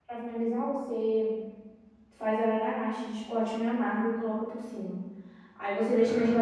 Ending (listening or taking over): listening